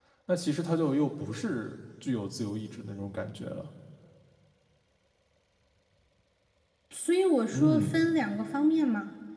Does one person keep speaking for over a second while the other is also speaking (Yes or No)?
No